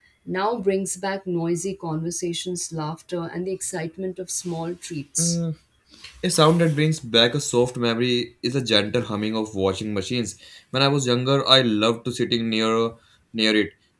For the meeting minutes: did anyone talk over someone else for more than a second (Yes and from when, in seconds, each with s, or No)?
No